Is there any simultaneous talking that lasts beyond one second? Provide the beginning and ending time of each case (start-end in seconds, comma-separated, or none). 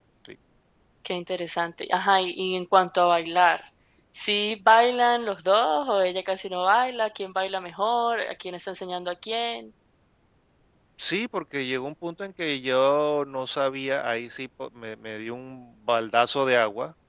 none